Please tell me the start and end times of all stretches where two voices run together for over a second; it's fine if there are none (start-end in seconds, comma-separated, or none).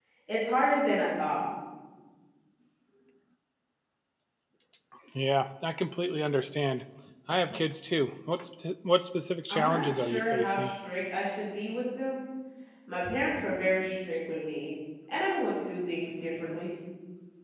9.5-10.7